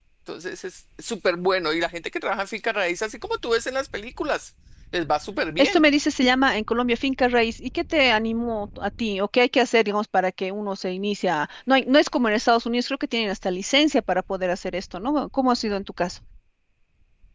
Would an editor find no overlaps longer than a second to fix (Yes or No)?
Yes